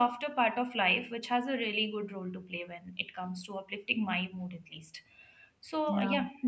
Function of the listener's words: listening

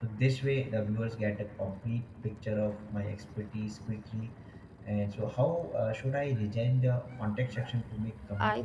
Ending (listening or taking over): taking over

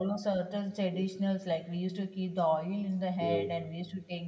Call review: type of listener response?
listening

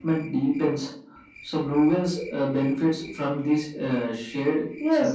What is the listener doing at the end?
taking over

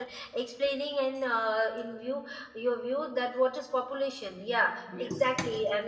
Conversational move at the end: listening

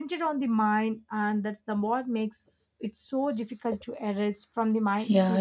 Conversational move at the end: taking over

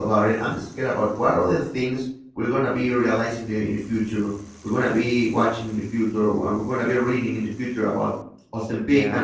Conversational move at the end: listening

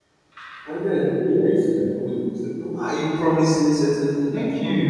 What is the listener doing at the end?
taking over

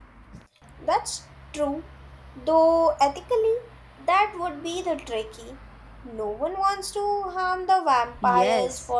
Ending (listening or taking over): taking over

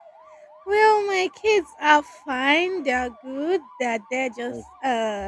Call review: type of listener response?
listening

